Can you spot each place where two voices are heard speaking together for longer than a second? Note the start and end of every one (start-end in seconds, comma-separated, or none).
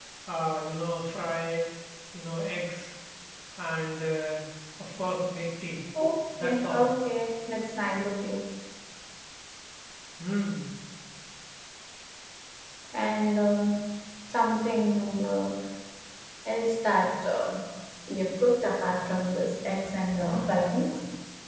none